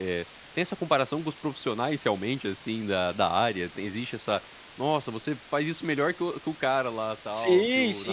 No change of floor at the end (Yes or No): No